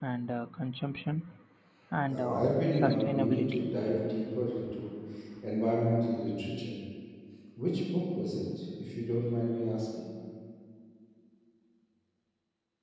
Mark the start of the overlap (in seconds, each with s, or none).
2.1 s